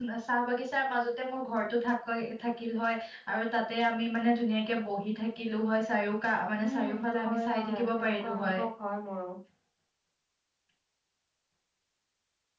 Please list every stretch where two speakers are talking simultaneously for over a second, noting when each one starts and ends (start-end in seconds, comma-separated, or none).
6.7-8.6